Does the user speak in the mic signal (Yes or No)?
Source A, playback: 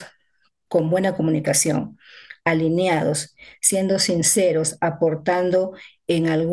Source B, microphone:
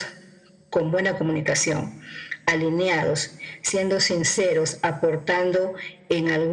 No